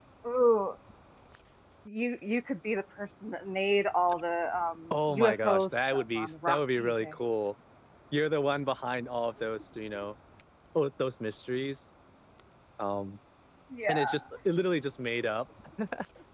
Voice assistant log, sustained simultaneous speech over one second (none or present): present